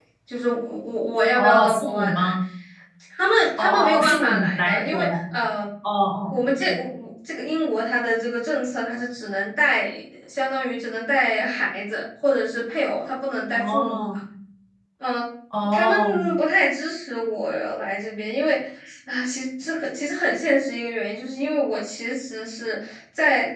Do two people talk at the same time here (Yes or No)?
Yes